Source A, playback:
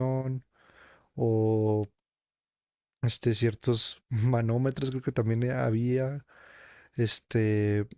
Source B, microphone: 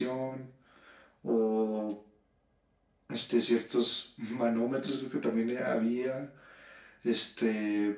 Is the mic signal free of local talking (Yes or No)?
Yes